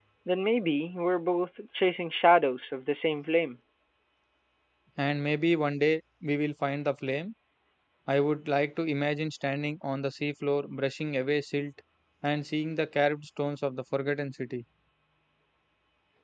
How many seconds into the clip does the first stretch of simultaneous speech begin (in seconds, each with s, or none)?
none